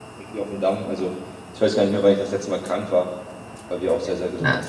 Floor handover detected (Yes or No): Yes